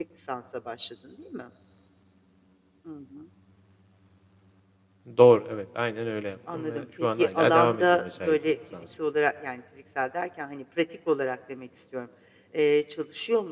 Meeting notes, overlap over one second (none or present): present